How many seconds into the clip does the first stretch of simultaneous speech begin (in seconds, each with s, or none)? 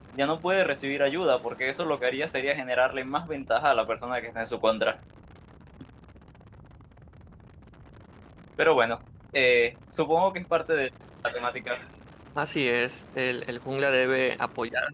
none